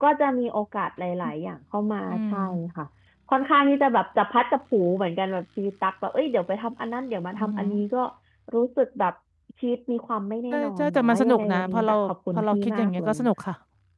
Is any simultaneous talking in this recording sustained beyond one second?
Yes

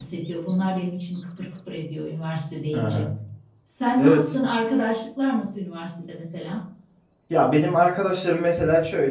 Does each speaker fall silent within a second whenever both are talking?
Yes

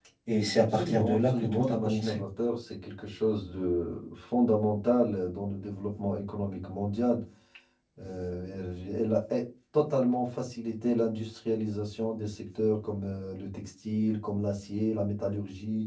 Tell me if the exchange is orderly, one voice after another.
No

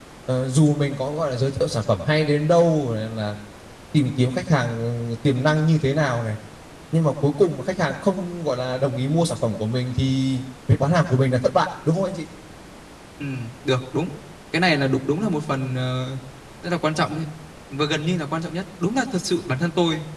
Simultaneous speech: No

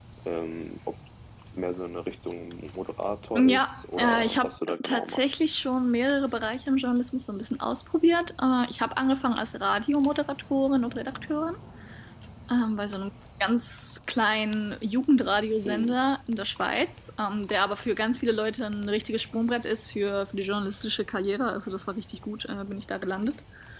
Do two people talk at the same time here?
Yes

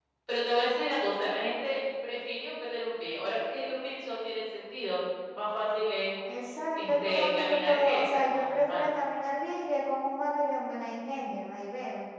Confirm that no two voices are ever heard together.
No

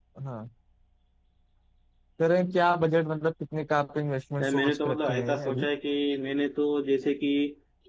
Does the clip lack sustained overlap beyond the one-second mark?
No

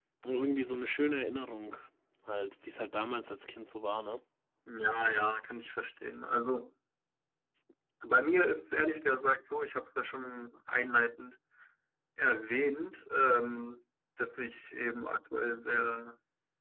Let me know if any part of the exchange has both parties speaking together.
No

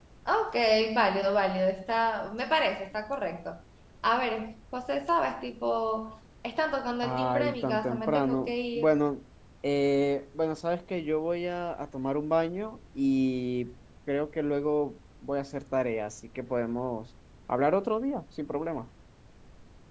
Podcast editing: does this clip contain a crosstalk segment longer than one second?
Yes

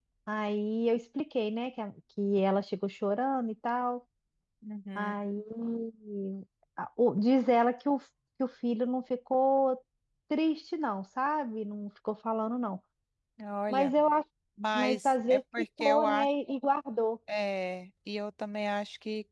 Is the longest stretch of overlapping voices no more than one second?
No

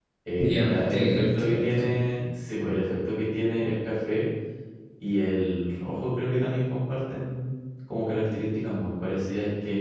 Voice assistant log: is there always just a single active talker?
No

